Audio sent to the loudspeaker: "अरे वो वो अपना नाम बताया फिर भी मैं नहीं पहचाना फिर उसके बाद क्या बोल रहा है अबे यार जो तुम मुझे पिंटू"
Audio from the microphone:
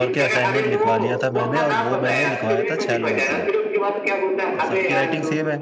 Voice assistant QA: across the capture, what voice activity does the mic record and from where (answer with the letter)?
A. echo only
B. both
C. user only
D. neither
B